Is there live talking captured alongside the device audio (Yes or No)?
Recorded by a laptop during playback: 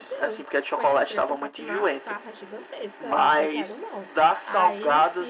Yes